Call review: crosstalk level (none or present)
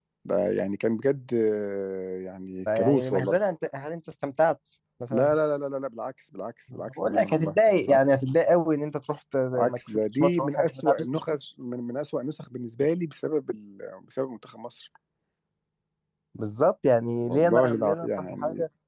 present